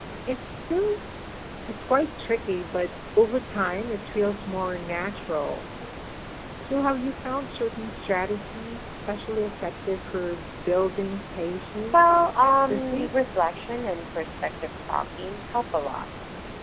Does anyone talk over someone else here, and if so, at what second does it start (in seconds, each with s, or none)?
11.9 s